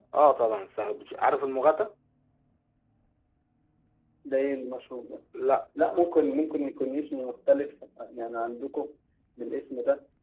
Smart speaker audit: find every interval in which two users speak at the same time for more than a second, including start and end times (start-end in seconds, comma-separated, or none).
none